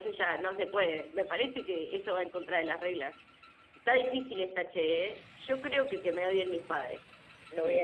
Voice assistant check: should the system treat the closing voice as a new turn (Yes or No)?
Yes